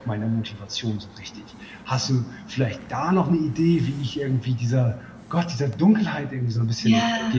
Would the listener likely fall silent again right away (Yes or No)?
No